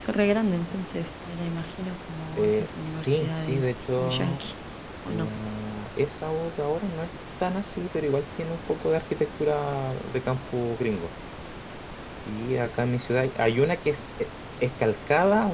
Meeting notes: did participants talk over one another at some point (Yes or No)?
Yes